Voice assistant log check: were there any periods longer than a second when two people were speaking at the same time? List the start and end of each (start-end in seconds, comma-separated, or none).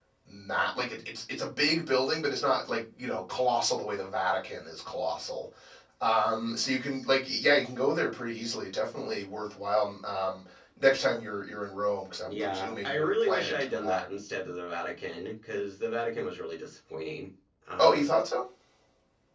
12.3-14.0